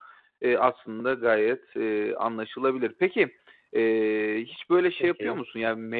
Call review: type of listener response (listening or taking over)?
listening